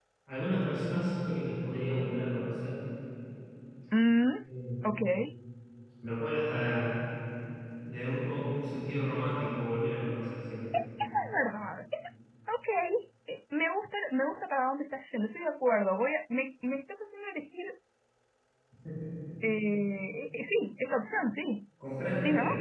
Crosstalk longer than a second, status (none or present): none